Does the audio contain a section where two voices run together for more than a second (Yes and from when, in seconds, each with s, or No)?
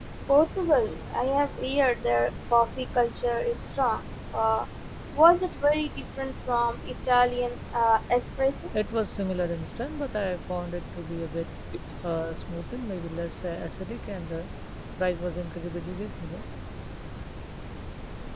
No